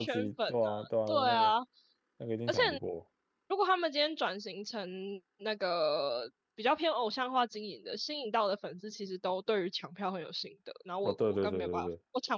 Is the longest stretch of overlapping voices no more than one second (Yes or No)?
No